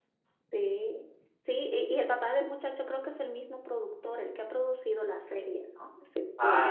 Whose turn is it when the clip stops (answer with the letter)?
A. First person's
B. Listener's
B